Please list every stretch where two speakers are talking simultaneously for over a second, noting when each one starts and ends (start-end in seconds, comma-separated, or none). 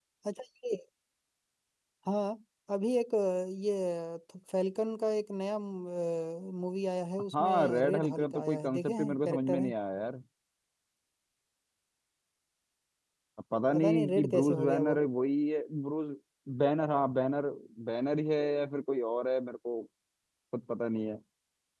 7.3-9.7, 13.7-14.9